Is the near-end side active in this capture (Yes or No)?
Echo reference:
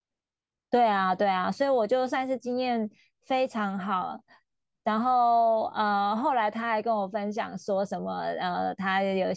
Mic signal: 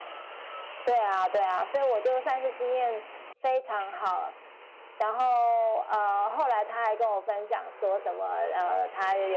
No